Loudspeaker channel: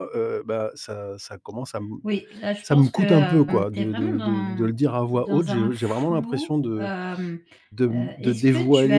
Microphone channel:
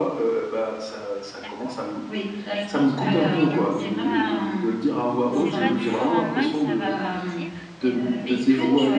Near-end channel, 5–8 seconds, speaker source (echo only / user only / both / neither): both